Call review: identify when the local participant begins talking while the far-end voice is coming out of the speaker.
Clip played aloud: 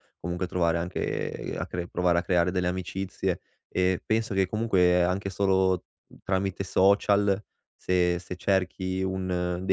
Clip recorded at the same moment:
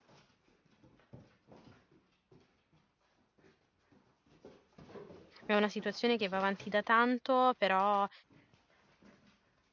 5.4 s

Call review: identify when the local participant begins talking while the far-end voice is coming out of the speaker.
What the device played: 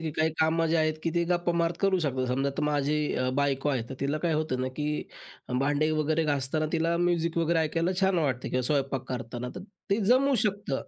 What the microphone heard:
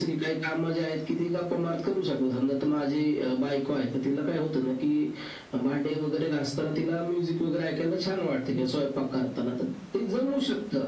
none

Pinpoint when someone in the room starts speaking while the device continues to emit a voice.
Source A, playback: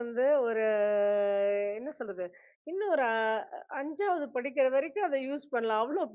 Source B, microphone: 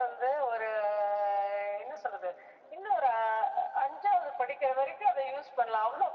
none

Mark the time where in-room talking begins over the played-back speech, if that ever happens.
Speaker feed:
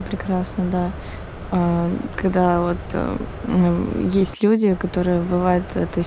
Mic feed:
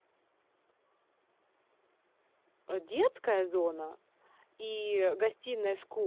2.7 s

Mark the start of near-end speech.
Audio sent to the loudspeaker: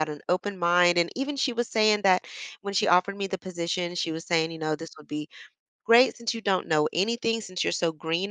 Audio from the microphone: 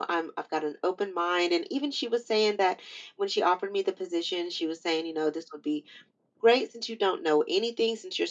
none

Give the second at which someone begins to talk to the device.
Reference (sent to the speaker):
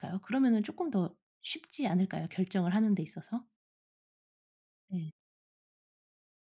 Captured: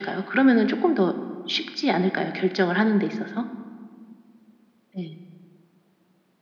none

